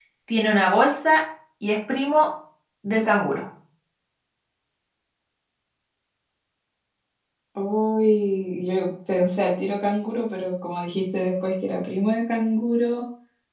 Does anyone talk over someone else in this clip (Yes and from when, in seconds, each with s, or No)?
No